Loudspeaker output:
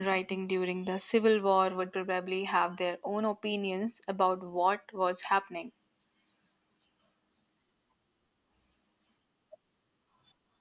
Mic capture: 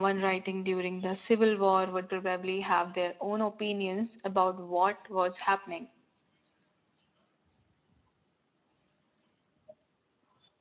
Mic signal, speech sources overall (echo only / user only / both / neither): echo only